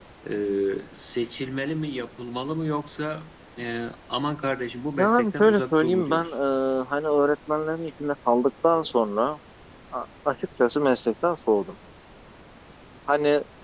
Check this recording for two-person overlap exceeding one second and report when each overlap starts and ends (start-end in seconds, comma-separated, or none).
5.0-6.4